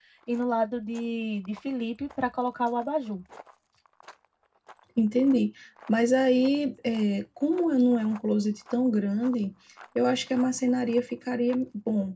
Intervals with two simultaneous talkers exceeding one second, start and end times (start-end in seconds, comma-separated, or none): none